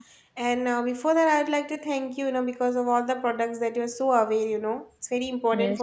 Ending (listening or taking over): listening